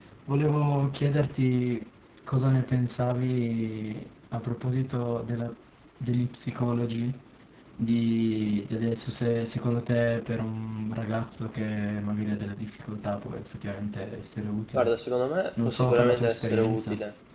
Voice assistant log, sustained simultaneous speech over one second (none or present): present